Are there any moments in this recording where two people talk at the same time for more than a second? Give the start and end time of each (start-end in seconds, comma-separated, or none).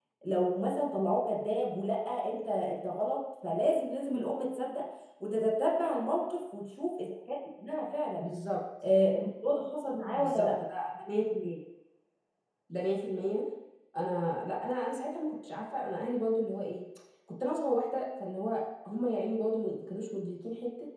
none